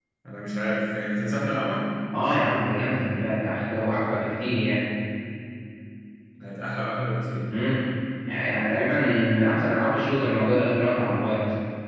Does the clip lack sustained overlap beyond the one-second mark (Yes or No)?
Yes